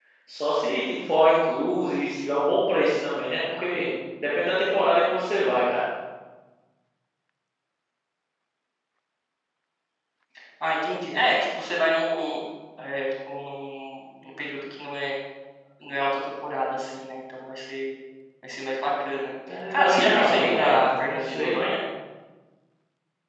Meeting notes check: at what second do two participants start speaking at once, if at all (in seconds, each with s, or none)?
19.5 s